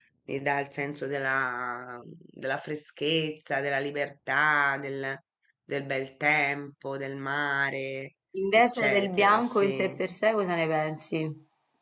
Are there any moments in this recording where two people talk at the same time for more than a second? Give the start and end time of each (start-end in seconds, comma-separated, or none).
8.5-10.0